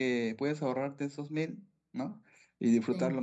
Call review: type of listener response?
listening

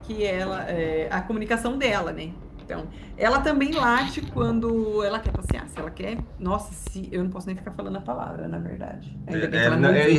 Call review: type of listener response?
taking over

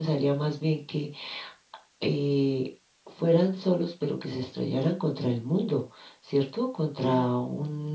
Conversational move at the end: listening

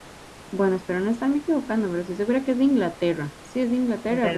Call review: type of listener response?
taking over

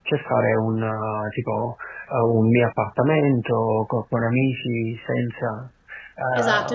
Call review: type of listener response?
taking over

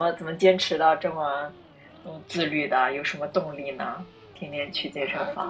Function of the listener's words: taking over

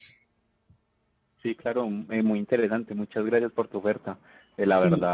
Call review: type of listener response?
listening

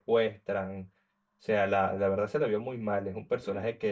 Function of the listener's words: listening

